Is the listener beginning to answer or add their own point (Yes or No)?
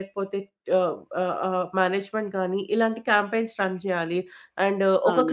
Yes